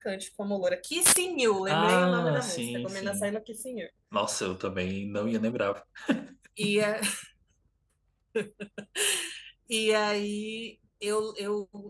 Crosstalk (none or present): present